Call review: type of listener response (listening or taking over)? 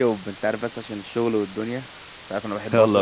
taking over